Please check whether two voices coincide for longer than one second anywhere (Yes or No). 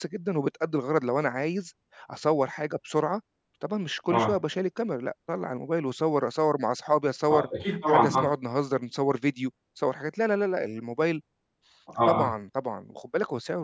No